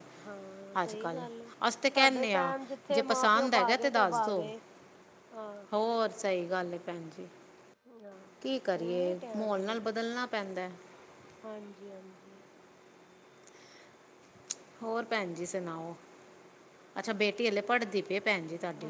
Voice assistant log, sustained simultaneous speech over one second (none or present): present